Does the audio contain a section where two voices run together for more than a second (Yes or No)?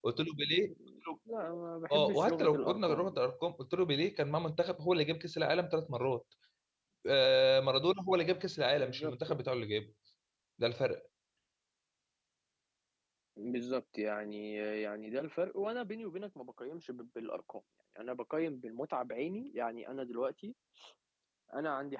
Yes